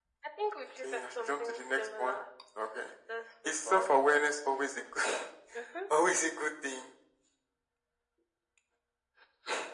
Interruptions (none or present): present